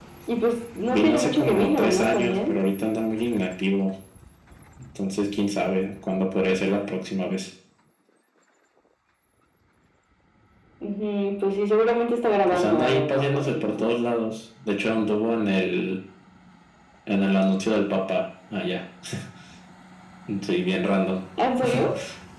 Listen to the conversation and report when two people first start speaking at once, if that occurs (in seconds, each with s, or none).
0.9 s